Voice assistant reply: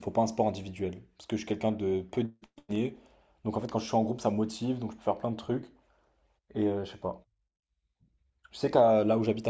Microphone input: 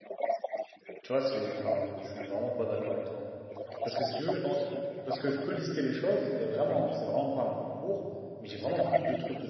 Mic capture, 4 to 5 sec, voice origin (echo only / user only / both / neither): both